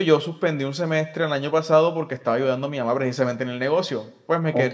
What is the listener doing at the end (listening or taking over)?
listening